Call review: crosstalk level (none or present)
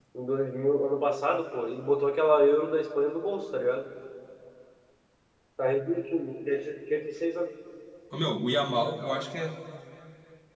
none